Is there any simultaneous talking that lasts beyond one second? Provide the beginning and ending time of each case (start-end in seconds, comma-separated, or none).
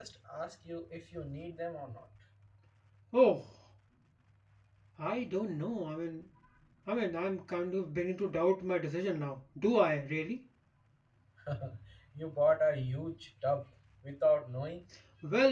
none